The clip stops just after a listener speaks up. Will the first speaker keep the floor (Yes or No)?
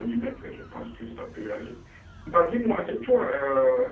Yes